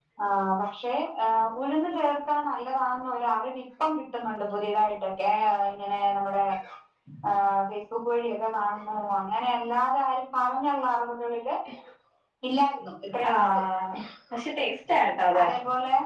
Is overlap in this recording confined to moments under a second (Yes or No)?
Yes